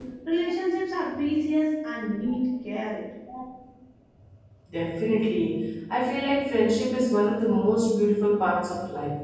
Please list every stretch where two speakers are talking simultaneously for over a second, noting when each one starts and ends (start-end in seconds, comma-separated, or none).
none